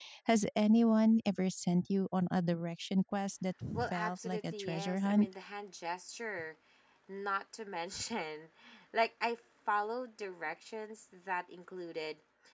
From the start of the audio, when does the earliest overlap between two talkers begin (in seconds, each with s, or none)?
3.7 s